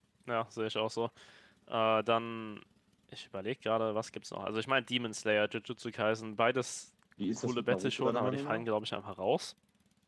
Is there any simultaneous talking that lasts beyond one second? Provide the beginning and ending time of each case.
7.4-8.6

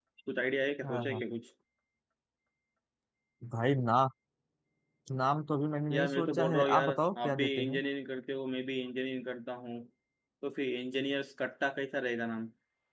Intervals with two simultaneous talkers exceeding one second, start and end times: 5.9-7.8

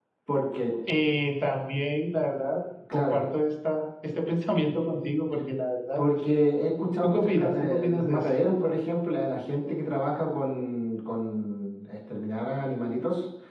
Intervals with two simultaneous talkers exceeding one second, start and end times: 7.0-8.3

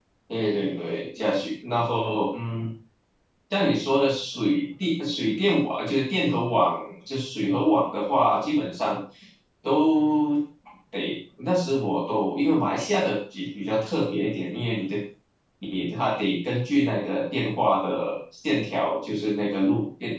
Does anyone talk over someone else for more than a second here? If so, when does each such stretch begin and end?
none

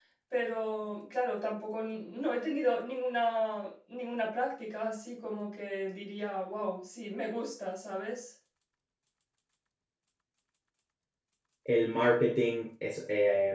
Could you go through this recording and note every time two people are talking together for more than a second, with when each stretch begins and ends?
none

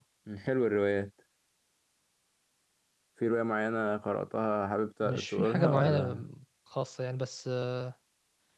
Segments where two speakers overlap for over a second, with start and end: 5.0-6.2

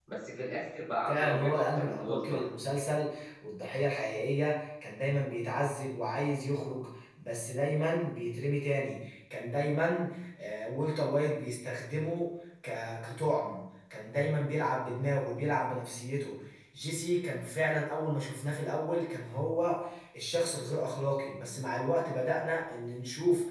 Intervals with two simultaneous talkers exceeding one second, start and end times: 1.1-2.5

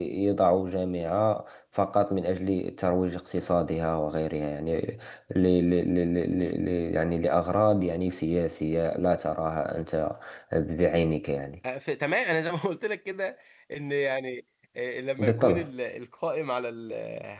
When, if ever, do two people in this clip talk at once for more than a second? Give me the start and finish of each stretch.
none

